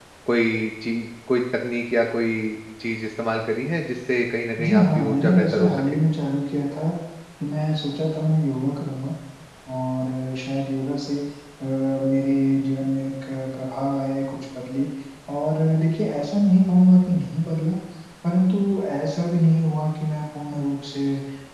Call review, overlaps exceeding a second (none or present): present